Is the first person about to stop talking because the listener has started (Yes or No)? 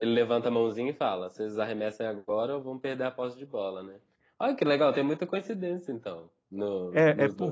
Yes